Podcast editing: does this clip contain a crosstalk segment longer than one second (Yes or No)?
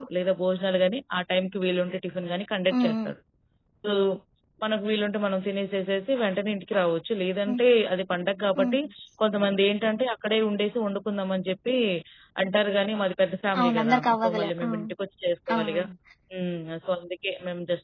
Yes